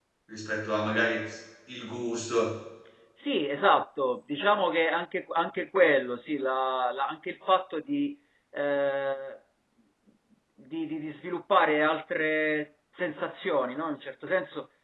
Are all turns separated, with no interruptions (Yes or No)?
Yes